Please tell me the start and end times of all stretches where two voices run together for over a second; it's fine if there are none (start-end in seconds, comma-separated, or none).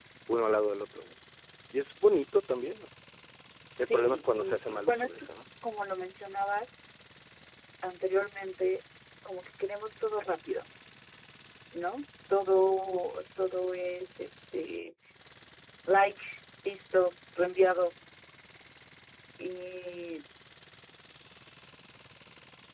3.8-5.3